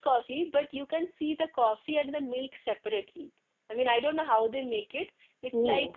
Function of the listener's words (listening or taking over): listening